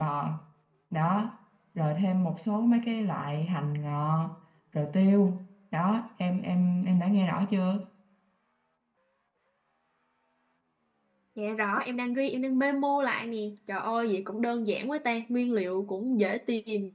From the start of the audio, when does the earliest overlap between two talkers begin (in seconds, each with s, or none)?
none